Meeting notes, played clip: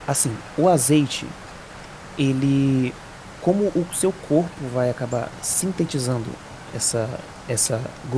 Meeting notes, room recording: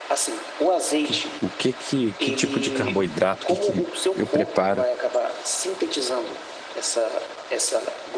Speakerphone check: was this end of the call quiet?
No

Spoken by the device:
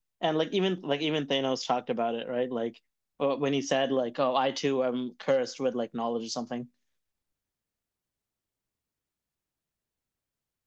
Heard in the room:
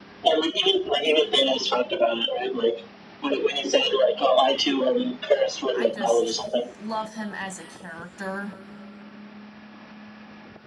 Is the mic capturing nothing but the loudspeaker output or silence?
No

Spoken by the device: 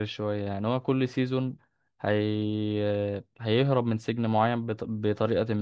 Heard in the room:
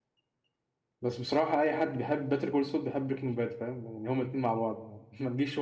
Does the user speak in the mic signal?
Yes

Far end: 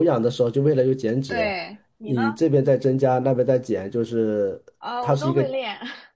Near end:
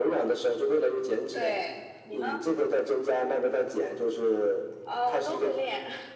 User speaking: No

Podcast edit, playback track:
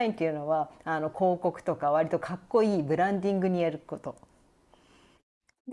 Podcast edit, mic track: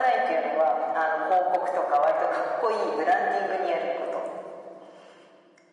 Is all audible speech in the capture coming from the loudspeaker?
Yes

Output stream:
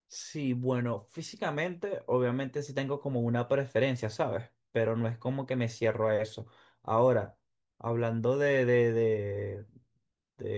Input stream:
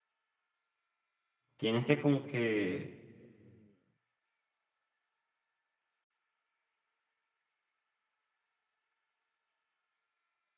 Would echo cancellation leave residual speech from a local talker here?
Yes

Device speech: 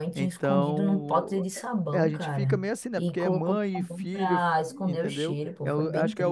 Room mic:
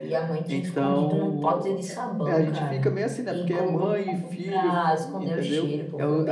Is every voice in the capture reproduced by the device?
Yes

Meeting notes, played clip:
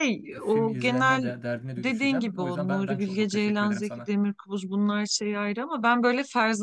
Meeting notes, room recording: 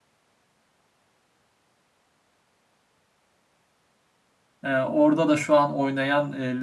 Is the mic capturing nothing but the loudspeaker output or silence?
No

